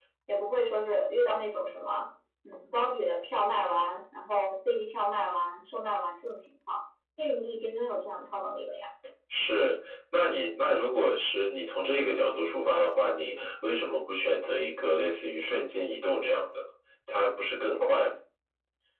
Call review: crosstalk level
none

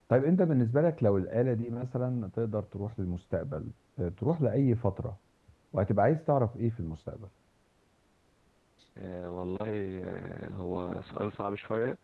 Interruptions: none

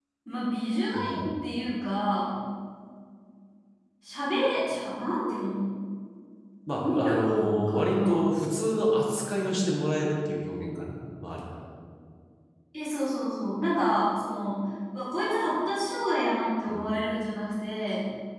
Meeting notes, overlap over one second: present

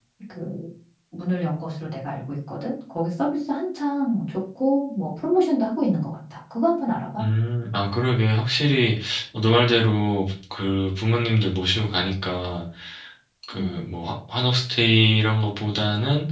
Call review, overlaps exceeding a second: none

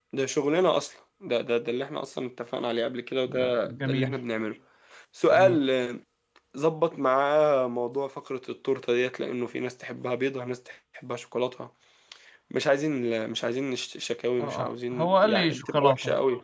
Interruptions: present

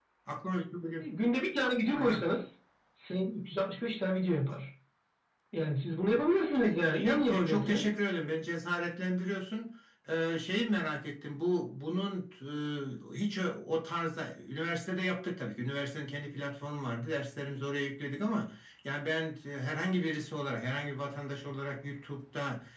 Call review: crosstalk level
present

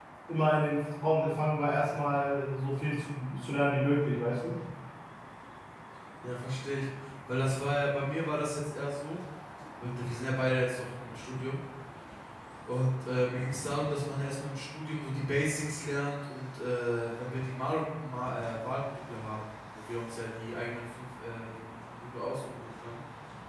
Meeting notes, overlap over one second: none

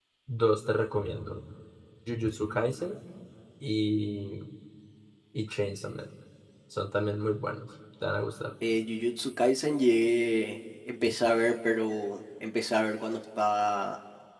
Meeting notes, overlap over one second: none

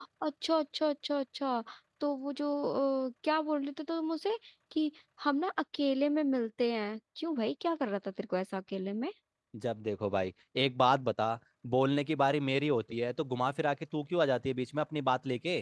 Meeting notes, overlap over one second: none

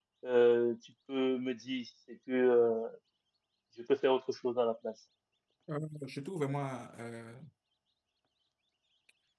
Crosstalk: none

